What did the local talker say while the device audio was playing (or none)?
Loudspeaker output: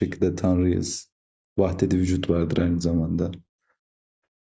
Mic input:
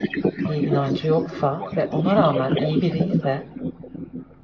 bir inancı yoksa ve ona rağmen iyi biri ise